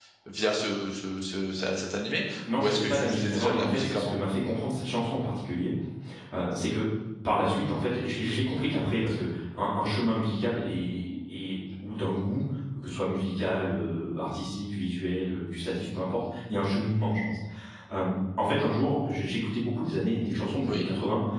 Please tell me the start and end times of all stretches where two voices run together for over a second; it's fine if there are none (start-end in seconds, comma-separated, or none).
2.5-4.2